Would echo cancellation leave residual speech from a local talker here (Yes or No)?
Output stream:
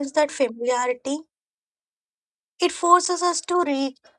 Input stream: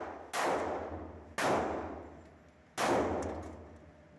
No